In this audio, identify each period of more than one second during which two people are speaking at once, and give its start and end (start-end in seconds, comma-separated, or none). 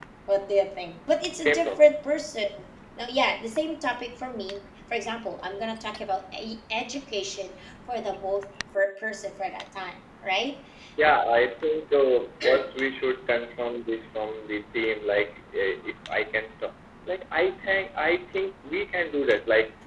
none